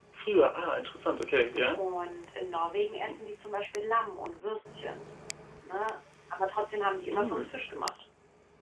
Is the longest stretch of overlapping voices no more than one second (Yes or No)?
Yes